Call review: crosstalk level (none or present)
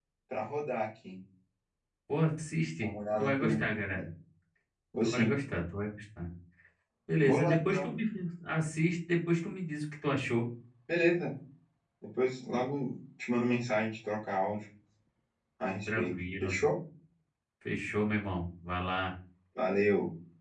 present